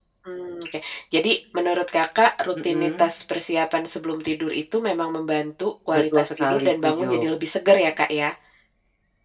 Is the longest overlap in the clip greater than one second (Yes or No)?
Yes